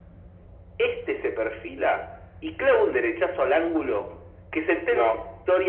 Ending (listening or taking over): listening